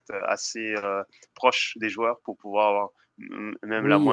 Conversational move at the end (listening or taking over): taking over